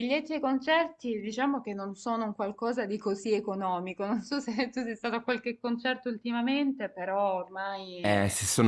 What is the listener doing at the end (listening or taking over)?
taking over